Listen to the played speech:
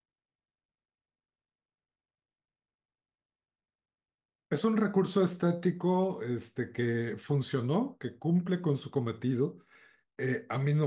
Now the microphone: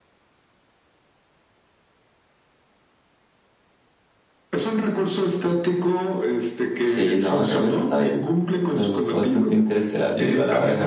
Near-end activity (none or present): present